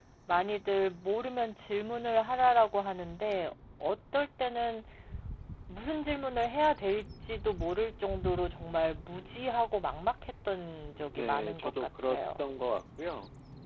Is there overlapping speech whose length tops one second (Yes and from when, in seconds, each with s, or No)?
Yes, from 10.9 s